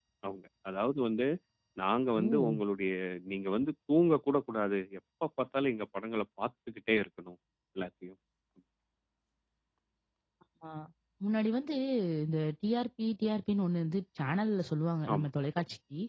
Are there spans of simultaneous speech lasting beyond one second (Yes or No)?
No